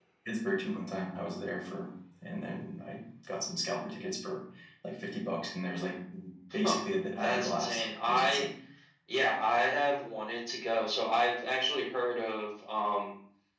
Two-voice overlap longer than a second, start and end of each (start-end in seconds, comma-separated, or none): 7.2-8.4